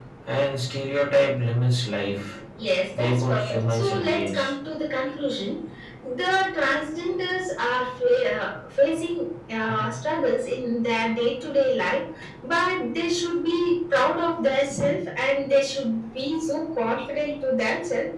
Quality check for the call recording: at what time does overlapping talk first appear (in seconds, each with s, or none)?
3.0 s